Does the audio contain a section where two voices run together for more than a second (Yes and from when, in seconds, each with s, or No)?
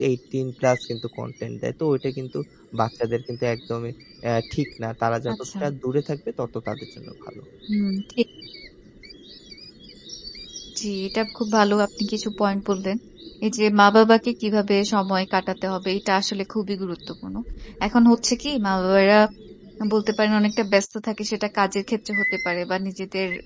No